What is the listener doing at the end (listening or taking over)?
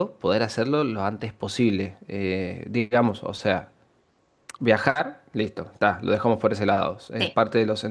listening